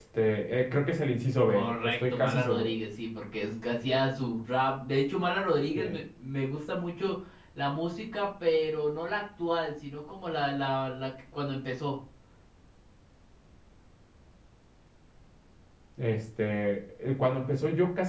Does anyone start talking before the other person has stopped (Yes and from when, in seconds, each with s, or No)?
Yes, from 1.5 s